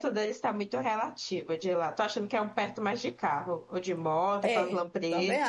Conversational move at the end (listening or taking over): taking over